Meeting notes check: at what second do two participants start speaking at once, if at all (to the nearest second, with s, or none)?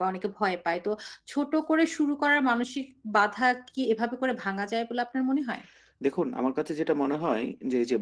none